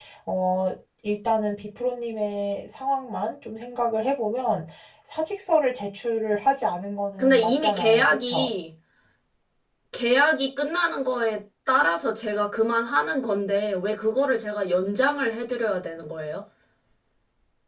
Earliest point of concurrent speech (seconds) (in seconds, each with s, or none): 7.2 s